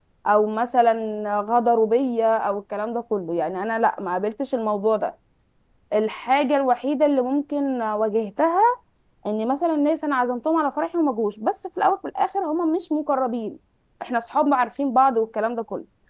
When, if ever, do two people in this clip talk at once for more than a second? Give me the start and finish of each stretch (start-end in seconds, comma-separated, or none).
none